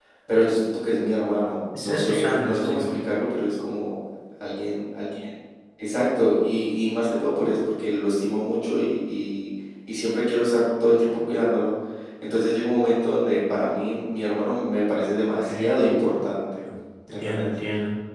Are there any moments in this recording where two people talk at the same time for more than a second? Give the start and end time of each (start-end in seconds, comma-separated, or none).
1.8-3.0